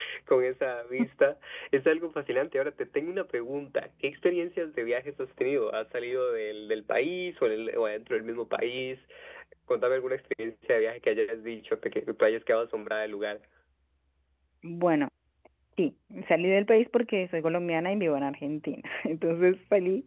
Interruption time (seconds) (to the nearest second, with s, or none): none